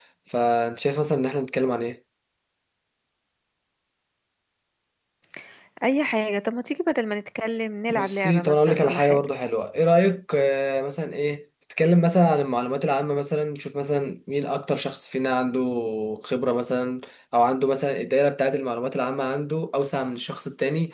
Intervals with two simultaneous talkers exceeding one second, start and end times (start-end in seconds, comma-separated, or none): 7.9-9.3